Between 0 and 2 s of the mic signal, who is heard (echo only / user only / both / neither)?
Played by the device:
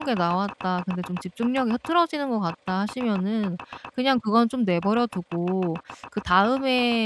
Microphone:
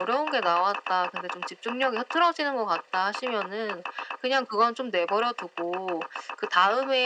echo only